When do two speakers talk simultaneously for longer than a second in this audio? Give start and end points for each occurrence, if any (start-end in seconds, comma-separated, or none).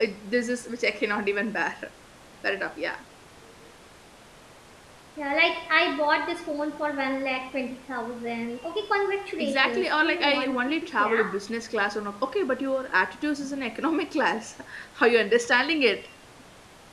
9.4-11.2